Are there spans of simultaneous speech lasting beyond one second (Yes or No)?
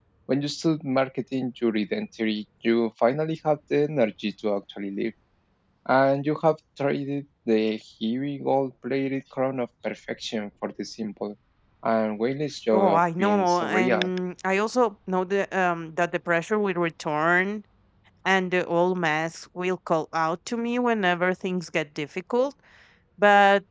Yes